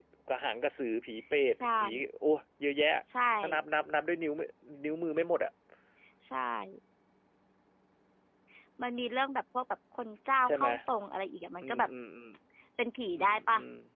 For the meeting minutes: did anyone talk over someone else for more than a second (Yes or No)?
No